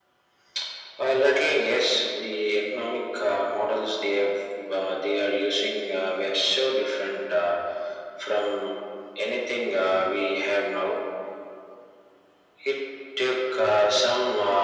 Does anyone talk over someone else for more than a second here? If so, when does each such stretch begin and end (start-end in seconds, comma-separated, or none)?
none